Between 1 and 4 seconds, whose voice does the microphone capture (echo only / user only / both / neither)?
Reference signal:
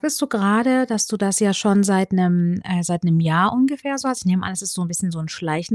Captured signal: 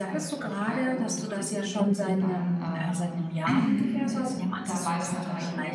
both